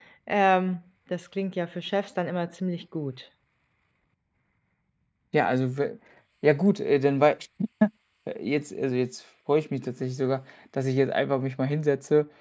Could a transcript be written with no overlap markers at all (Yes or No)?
Yes